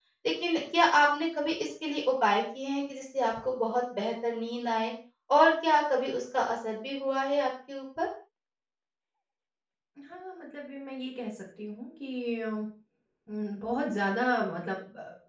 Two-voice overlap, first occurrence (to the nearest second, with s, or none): none